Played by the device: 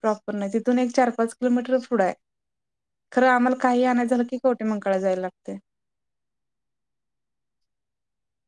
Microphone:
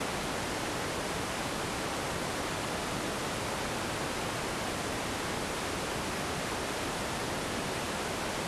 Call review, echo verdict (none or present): none